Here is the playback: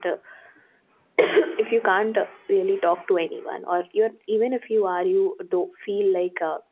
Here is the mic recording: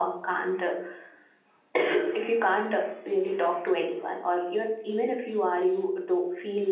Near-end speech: none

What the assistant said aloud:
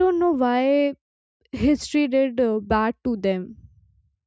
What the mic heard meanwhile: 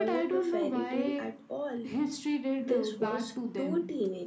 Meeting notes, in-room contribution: present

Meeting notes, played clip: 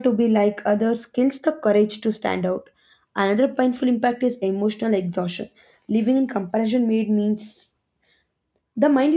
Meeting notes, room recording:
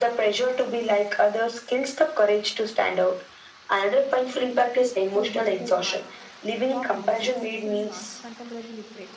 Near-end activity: present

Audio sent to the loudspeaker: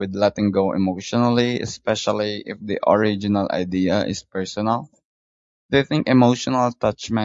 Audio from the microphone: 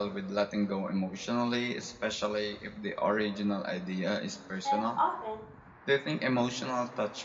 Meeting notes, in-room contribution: present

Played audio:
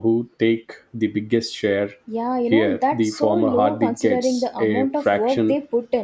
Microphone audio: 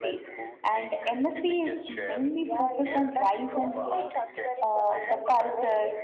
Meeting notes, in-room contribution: present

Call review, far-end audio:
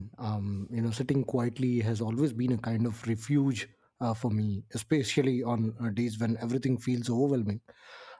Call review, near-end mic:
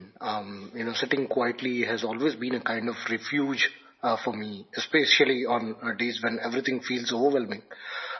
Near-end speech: none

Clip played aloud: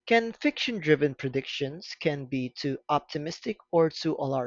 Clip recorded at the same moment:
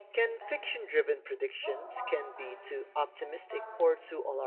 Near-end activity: present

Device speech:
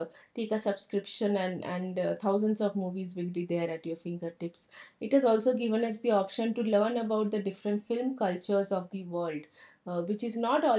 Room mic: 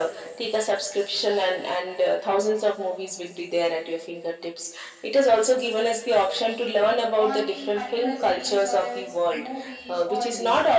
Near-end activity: present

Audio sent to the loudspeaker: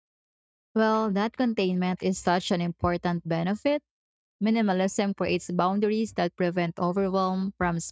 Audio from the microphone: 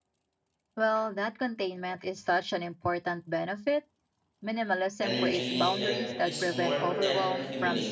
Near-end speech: present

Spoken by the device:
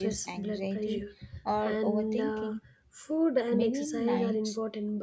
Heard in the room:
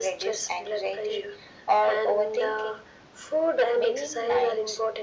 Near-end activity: none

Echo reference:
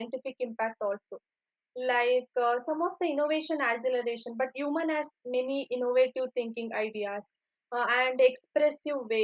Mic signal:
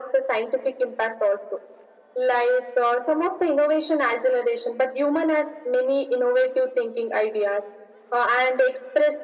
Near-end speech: none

